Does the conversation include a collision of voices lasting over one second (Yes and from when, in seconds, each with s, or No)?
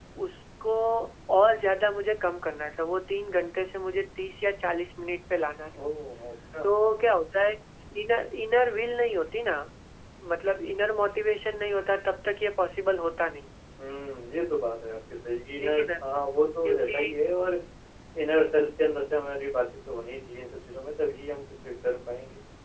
No